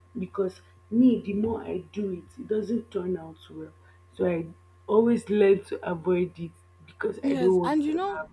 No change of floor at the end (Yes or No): No